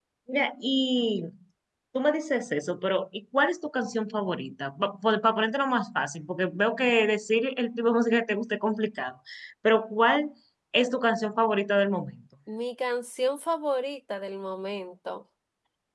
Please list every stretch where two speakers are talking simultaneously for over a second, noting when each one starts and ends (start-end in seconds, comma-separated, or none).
none